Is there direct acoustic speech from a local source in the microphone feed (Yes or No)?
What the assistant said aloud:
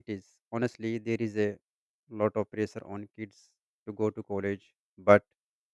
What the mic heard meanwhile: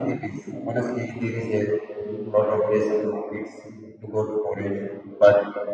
No